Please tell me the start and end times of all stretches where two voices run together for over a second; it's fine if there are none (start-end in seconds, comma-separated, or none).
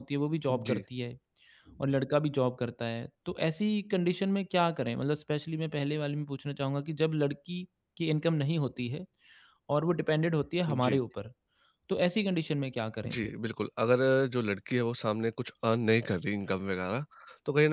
none